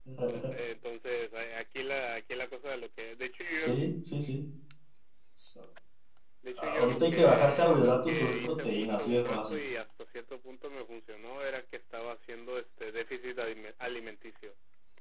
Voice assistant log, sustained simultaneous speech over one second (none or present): present